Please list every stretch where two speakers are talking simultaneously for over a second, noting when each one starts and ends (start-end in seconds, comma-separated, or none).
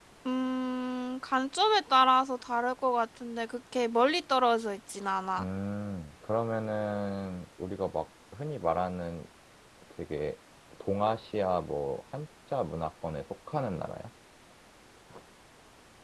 none